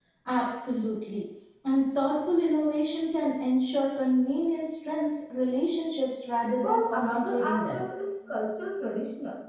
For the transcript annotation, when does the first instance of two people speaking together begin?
6.6 s

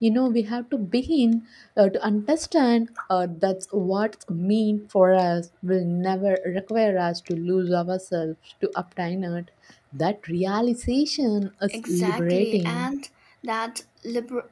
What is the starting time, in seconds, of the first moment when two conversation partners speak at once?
11.7 s

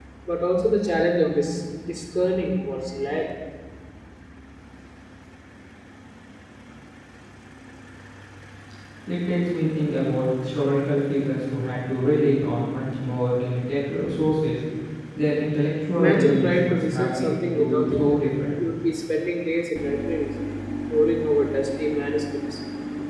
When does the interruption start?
15.9 s

